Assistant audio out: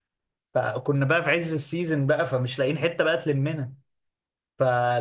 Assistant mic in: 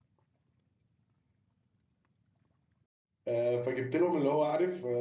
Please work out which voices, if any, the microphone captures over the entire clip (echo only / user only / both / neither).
user only